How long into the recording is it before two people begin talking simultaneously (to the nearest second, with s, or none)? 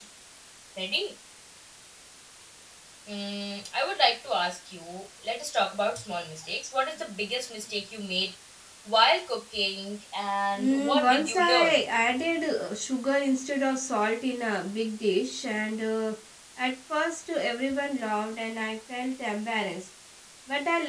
11 s